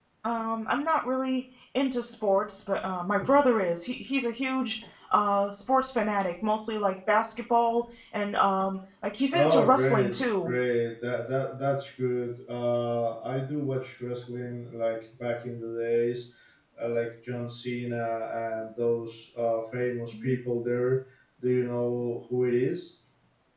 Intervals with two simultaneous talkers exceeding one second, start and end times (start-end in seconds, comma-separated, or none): 9.3-10.5